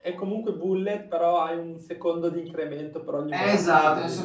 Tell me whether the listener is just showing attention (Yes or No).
No